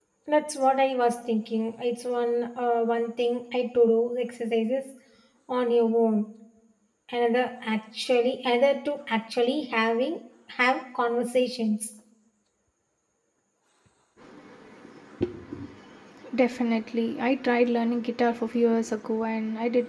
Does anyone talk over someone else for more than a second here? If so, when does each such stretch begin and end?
none

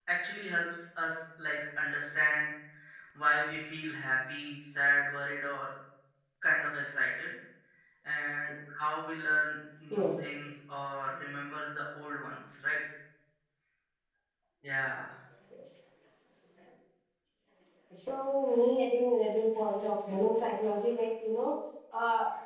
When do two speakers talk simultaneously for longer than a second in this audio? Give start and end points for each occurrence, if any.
none

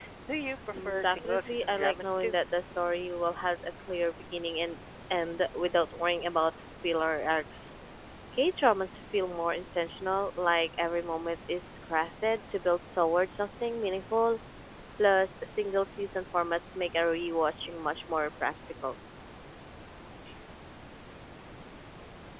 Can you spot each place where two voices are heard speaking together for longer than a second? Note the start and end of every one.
0.7-2.4

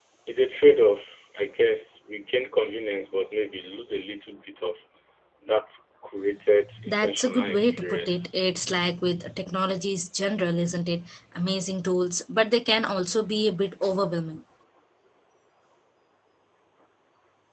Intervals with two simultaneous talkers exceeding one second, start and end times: 6.9-8.2

